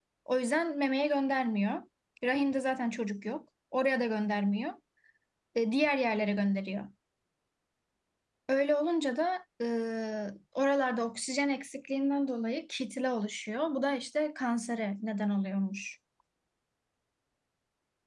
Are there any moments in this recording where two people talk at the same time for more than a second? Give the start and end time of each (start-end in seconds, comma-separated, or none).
none